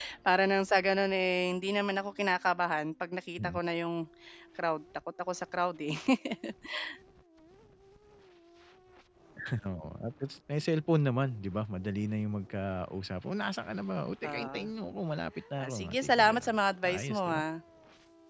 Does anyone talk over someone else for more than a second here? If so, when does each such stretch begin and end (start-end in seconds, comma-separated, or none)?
15.6-17.4